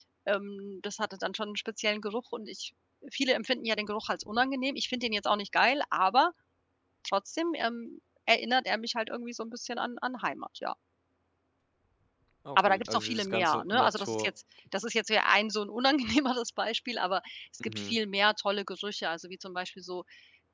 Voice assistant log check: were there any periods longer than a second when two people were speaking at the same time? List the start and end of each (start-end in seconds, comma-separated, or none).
12.6-14.3